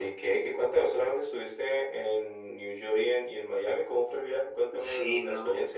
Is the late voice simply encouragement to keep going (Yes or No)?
No